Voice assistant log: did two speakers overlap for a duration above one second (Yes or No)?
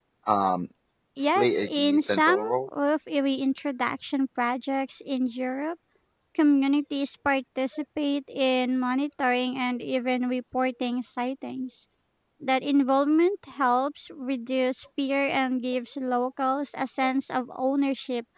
Yes